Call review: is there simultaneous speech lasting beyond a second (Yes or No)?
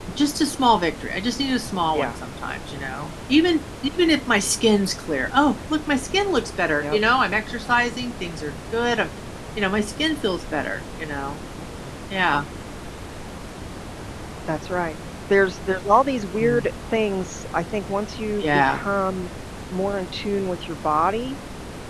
No